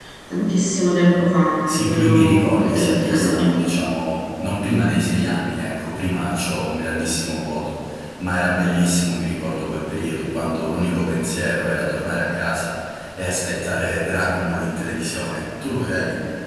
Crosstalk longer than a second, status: present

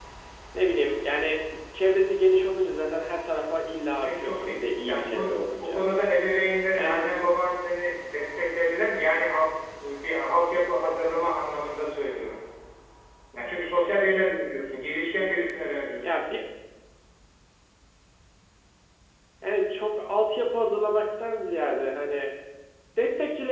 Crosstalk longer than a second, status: present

